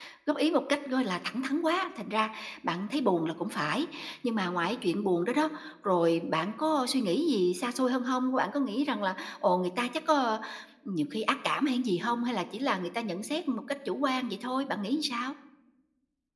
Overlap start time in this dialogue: none

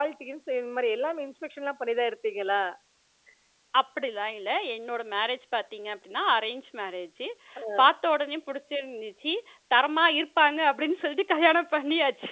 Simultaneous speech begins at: none

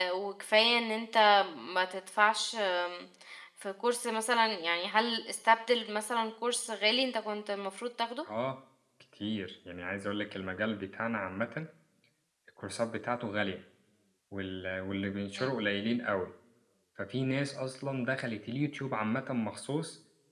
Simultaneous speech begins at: none

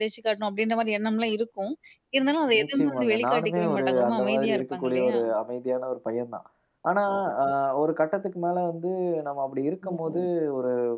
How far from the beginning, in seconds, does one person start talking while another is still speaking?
2.6 s

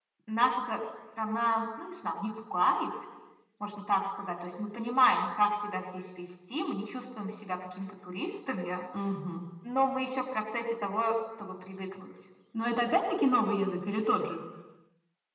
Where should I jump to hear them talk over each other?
none

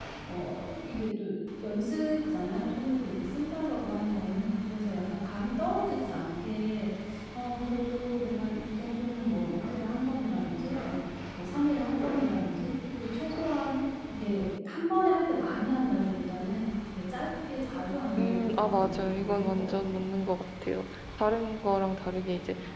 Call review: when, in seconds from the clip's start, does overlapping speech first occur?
18.2 s

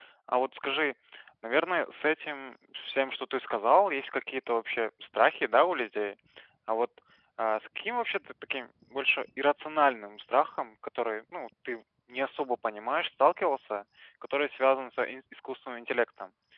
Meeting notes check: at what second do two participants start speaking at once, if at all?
none

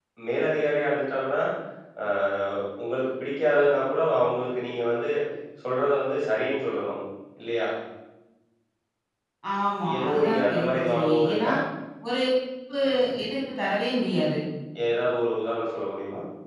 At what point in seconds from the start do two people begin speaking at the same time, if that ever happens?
9.9 s

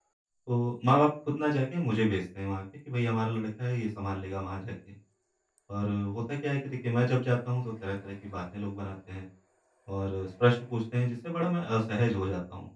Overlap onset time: none

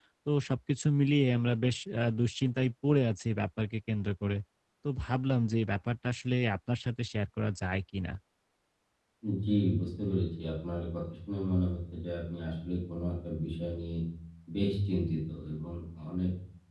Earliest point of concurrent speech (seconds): none

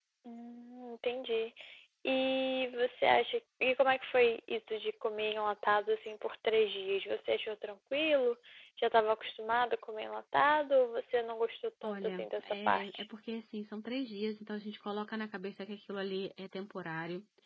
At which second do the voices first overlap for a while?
11.8 s

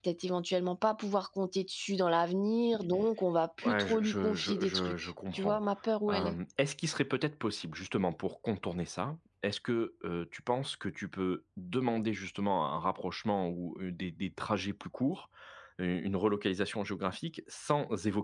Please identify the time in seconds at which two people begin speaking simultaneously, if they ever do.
3.6 s

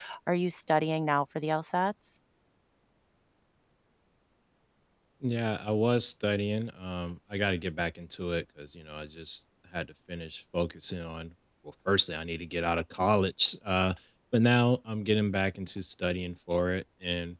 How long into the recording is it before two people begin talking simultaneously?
none

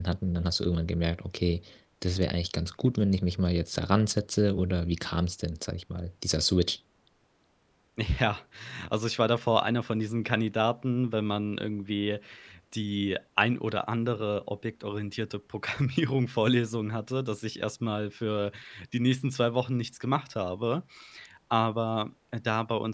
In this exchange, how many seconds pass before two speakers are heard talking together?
none

